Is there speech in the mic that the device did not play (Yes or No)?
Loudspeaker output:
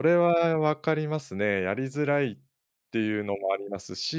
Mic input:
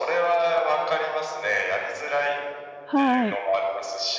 Yes